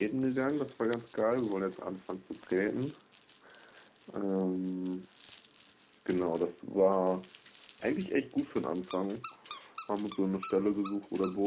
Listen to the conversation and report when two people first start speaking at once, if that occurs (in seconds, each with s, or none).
none